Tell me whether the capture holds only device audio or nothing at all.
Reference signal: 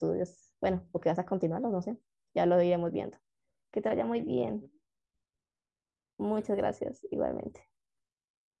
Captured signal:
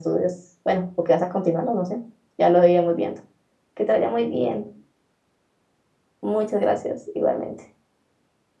Yes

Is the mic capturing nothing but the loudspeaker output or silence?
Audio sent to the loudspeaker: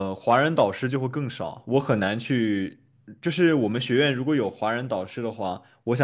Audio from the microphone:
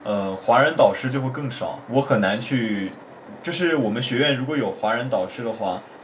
Yes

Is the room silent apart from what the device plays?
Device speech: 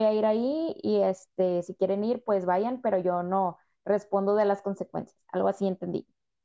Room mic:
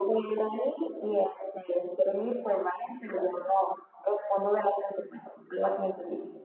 Yes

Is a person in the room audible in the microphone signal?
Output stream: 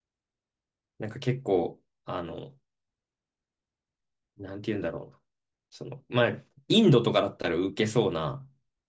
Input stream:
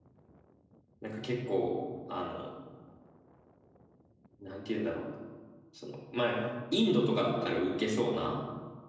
No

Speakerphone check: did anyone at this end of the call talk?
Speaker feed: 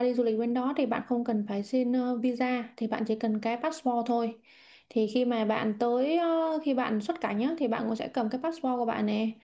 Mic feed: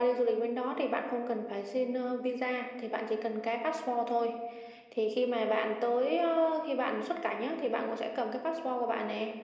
No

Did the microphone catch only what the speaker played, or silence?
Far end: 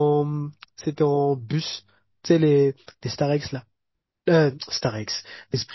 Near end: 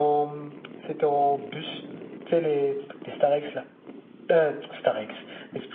Yes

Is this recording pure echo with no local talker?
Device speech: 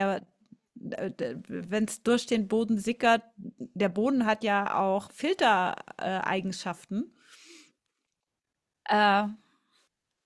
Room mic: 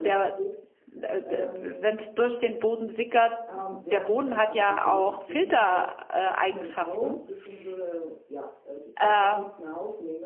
No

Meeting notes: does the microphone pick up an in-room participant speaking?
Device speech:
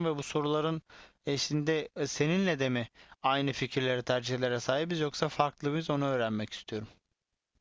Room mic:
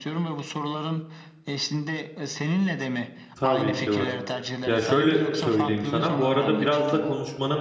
Yes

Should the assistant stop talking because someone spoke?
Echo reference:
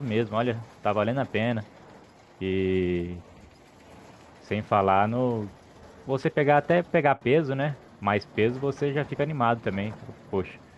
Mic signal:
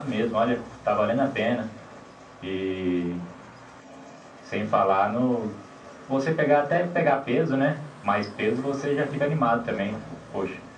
No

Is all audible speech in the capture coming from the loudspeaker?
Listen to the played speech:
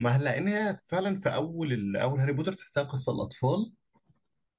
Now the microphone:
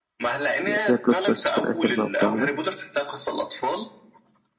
No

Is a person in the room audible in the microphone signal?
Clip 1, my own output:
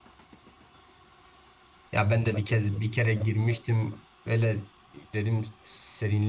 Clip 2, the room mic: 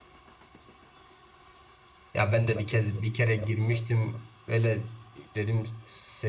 No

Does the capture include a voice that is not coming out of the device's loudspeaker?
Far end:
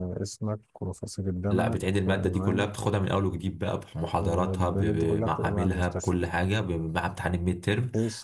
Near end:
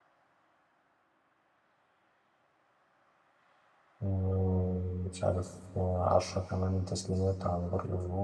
Yes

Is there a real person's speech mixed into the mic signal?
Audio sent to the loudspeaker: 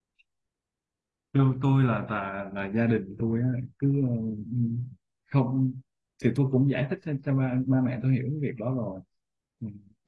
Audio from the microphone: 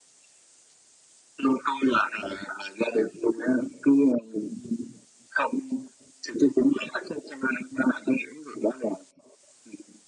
No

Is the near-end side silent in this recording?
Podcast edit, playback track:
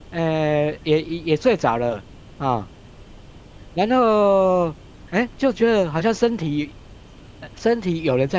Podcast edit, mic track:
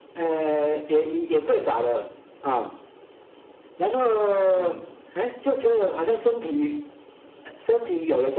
No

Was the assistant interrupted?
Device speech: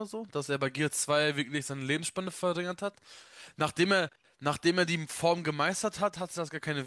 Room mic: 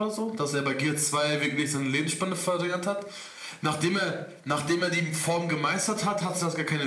No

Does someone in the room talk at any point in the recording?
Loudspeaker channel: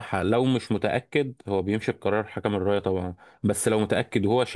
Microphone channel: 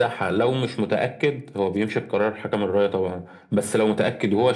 No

